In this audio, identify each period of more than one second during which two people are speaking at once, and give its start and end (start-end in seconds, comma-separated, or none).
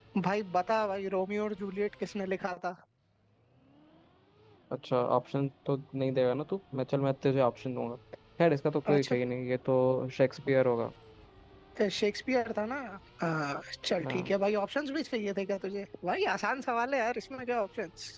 none